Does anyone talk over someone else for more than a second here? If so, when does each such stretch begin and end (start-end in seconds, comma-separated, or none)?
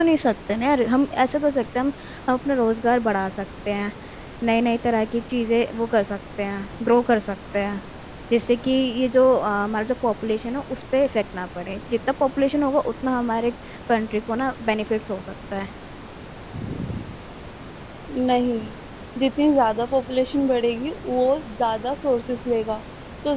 none